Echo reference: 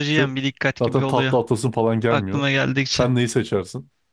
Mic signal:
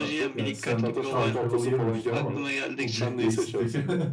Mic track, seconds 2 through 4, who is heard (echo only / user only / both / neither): both